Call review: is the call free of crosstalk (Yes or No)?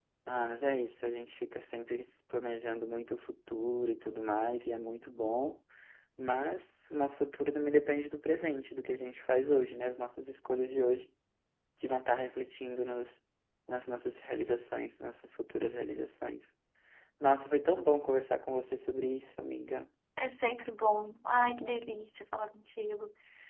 Yes